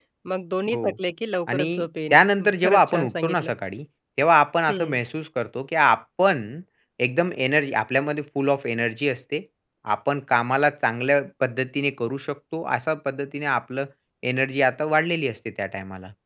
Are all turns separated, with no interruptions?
No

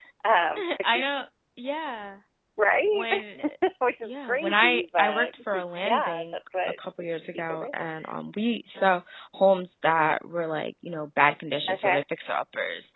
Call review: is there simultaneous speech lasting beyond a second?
Yes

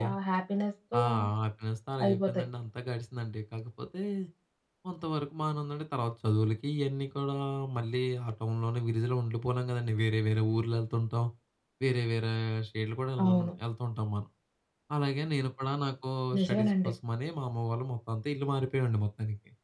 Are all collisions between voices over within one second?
Yes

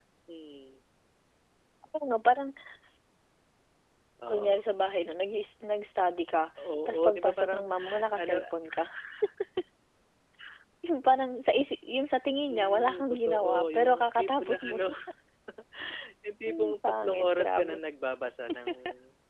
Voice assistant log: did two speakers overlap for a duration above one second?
Yes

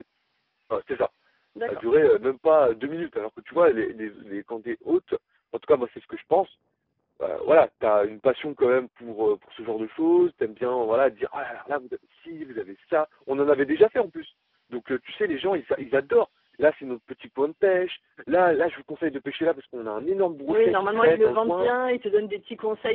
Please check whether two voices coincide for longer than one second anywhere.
Yes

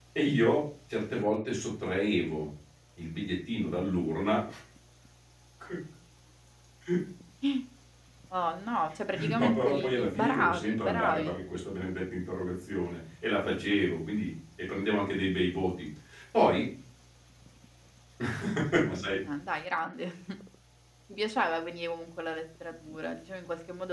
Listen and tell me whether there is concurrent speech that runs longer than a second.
Yes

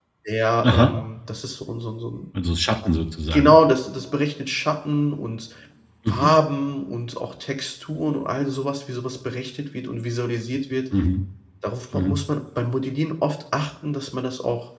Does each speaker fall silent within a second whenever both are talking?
Yes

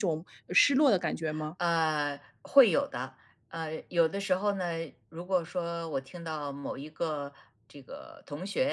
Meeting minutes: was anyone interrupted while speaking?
No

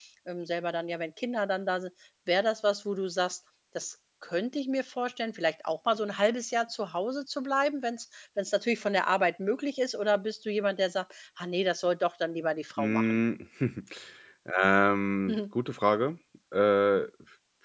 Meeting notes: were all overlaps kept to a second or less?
Yes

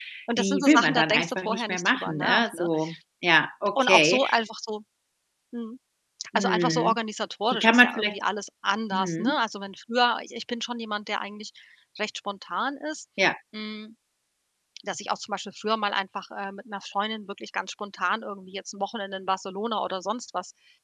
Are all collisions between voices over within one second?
No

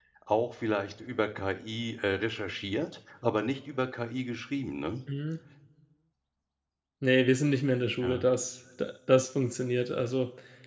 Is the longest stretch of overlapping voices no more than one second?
Yes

